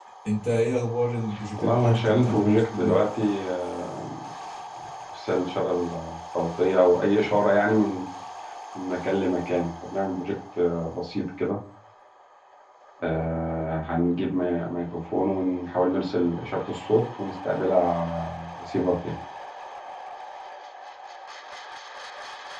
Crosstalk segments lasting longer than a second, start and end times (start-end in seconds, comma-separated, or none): 1.6-3.0